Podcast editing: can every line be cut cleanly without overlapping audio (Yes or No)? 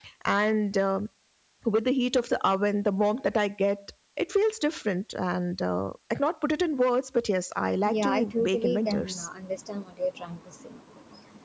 No